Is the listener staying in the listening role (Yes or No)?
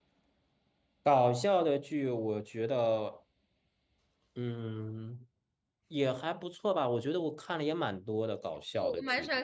No